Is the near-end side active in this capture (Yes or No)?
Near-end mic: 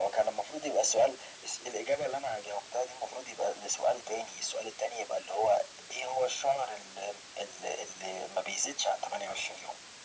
No